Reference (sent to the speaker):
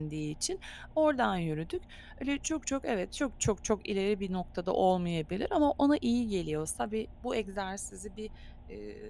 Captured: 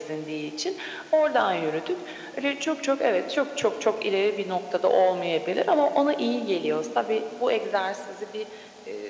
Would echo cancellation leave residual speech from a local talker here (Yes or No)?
No